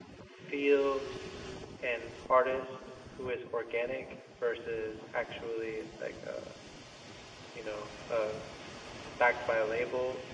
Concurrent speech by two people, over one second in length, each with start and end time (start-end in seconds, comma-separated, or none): none